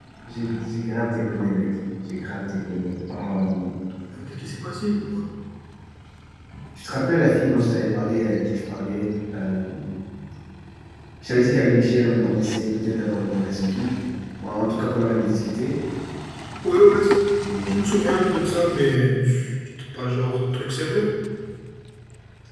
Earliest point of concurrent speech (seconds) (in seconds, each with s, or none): none